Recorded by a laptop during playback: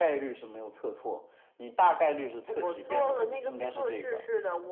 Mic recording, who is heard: echo only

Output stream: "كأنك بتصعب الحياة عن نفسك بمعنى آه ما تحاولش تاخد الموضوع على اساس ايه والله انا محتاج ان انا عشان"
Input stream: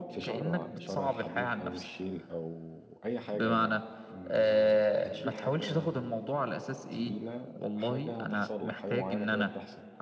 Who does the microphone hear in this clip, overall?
both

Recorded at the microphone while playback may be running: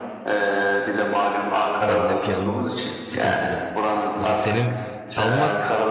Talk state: both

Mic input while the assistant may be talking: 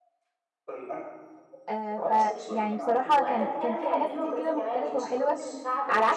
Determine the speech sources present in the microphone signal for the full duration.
both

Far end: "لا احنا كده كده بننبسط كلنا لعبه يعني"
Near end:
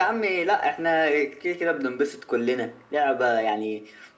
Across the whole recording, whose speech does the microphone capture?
echo only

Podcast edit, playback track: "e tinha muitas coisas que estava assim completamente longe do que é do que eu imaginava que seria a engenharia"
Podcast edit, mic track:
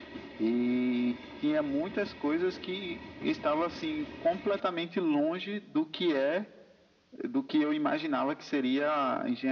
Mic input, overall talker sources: echo only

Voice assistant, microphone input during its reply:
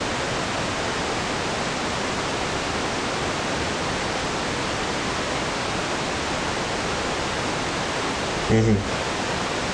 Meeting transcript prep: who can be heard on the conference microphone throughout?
user only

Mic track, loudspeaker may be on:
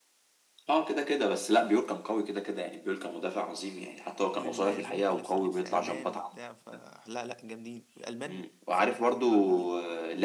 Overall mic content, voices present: both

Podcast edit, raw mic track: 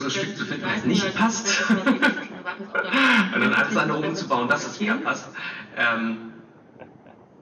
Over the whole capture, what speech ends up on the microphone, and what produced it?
echo only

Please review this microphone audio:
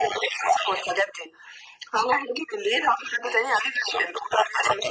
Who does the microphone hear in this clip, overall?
echo only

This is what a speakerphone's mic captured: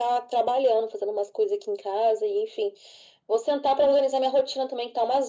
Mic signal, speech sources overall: echo only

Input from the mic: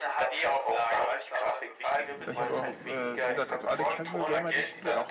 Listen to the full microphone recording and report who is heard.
both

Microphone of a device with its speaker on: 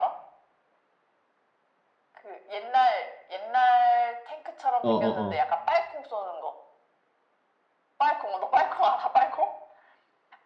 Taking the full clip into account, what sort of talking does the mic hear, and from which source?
both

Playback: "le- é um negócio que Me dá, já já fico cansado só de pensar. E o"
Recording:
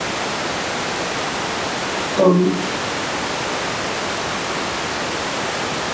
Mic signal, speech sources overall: user only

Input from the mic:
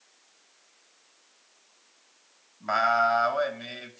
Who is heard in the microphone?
user only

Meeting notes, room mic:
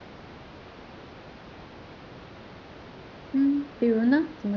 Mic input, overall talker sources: user only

